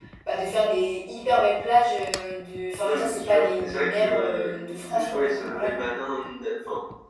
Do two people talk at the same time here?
Yes, from 2.8 s

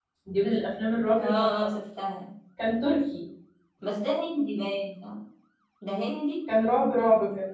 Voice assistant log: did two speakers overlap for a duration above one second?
No

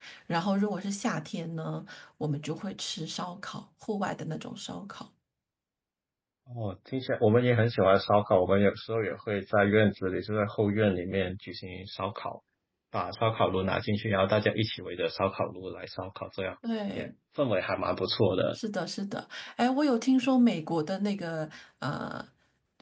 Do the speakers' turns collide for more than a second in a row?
No

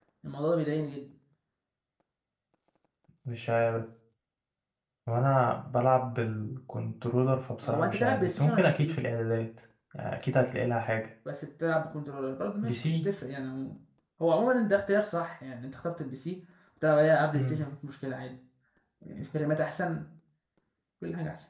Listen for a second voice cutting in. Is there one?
Yes, from 7.6 s

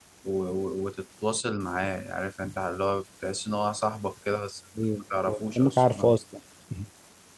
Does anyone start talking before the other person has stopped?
Yes, from 4.8 s

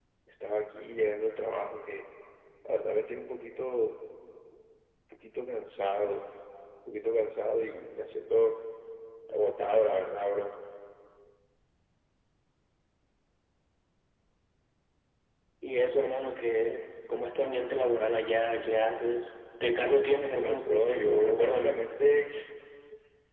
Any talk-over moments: Yes, from 20.4 s

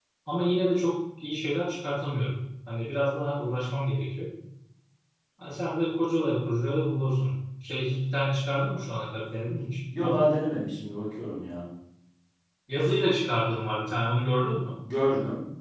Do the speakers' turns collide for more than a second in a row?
No

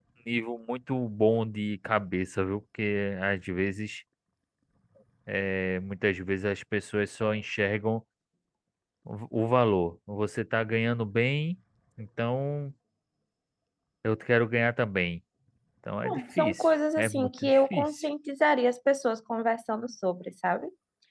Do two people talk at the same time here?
Yes, from 16.0 s

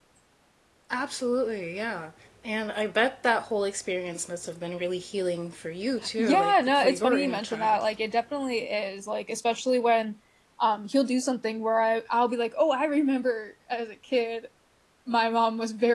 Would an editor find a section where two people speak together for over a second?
Yes, from 6.2 s

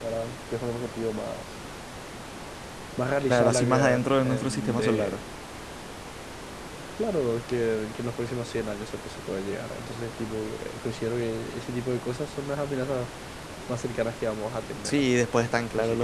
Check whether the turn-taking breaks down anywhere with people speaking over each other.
Yes, from 3.3 s

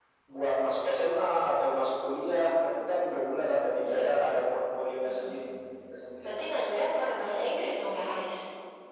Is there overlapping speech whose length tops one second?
No

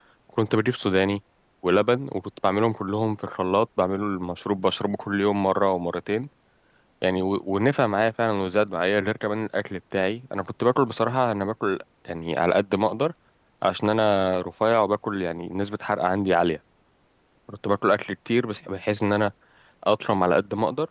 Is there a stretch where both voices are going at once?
No

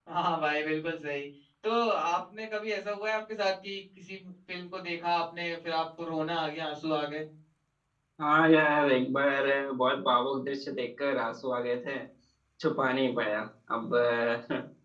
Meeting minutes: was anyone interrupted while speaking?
No

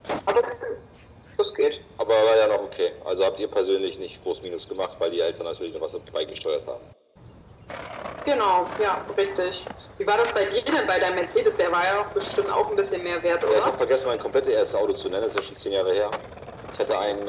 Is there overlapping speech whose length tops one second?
No

